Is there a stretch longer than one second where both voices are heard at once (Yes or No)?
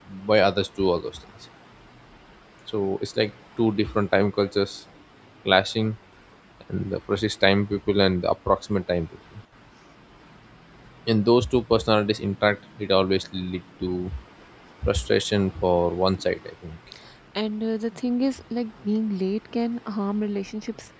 No